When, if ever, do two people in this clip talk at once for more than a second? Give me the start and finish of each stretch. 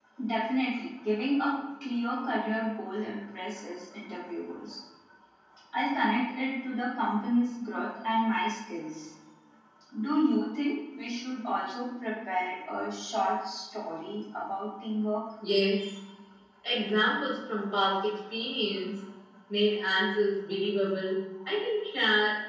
none

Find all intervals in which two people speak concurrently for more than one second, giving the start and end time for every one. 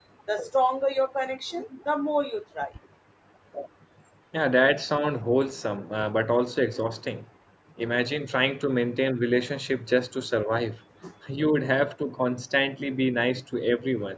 none

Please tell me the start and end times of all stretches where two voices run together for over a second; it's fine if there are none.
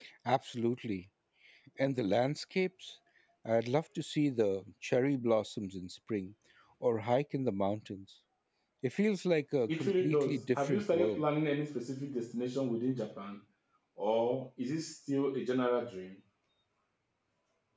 9.7-11.2

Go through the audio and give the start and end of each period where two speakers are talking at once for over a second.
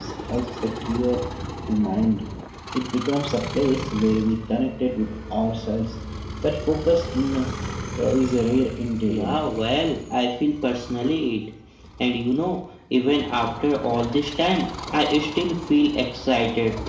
none

